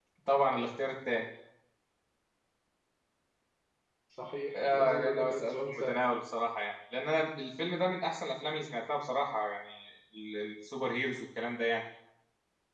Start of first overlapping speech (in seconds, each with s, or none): 4.5 s